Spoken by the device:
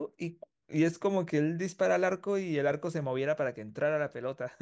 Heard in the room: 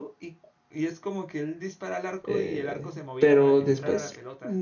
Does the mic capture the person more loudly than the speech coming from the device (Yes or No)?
Yes